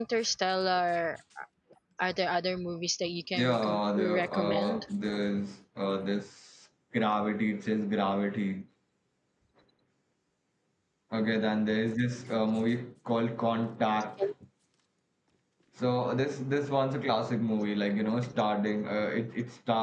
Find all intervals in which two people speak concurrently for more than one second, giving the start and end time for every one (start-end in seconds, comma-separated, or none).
3.3-4.8